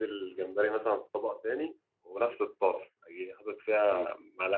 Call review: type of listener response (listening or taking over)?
listening